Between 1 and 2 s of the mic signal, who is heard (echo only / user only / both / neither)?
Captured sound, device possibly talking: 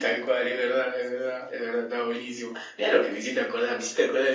echo only